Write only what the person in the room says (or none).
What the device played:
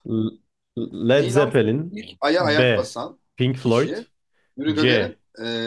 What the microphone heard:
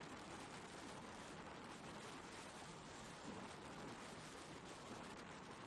none